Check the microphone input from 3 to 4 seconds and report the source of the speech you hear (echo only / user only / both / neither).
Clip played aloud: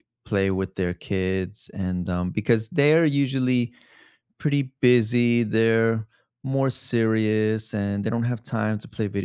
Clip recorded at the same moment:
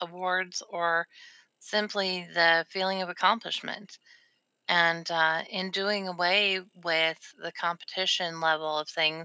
user only